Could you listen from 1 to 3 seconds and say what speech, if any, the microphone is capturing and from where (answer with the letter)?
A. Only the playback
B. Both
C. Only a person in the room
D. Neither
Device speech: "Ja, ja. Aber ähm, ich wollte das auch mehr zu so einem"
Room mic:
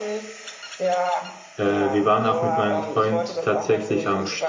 B